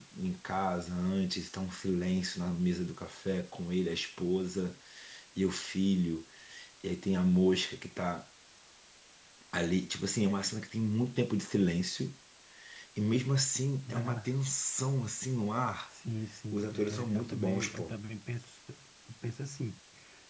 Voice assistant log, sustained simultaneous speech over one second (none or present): present